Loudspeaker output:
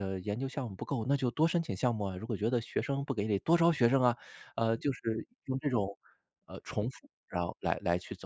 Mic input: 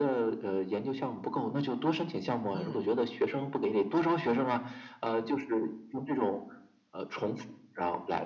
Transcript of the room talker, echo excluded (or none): 嗯。